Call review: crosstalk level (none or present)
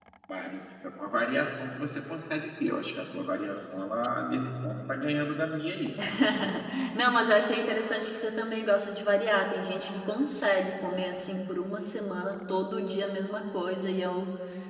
none